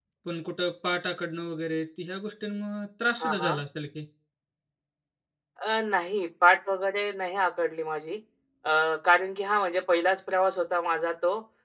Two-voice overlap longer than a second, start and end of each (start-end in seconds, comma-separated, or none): none